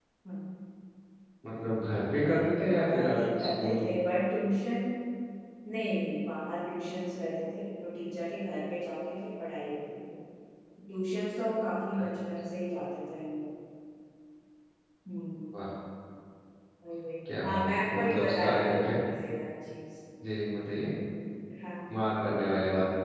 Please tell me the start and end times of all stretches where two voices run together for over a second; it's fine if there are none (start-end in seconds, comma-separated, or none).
2.2-3.8, 17.4-18.9